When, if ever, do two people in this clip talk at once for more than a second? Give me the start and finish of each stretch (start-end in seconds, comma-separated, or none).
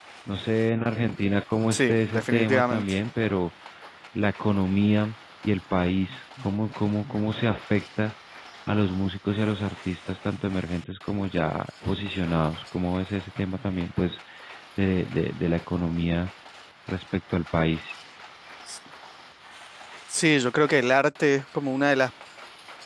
1.7-3.0